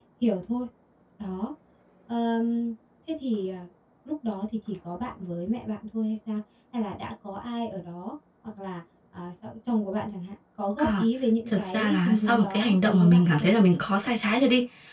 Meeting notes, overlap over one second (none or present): present